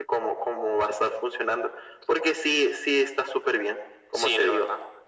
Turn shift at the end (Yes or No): Yes